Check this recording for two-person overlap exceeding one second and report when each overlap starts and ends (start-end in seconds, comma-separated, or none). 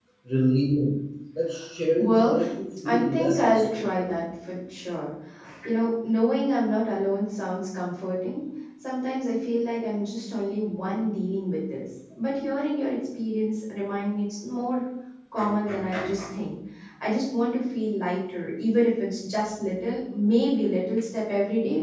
2.9-4.1